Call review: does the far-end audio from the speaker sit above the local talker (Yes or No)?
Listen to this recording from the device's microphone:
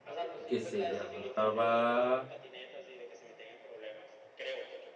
No